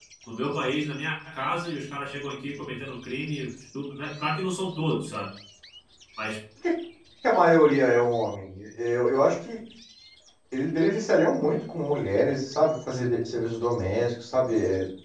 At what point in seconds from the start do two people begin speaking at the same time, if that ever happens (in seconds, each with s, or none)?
none